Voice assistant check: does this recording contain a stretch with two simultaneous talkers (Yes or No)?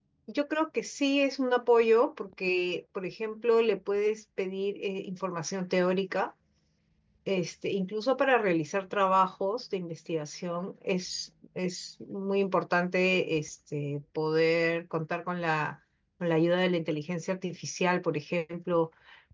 No